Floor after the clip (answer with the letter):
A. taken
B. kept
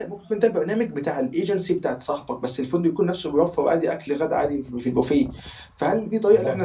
B